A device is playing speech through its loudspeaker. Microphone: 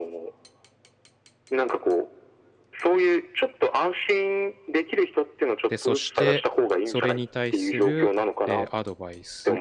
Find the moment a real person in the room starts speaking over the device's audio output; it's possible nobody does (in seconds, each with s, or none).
5.7 s